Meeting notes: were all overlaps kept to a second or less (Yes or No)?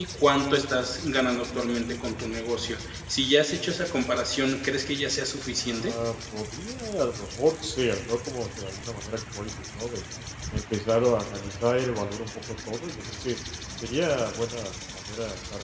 Yes